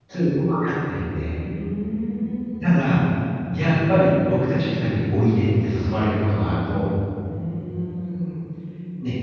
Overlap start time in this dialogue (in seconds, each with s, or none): none